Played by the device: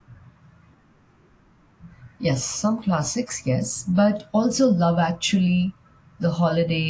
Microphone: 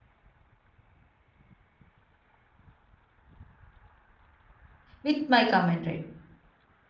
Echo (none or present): none